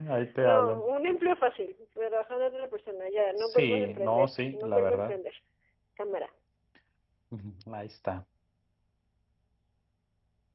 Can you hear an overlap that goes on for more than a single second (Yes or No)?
Yes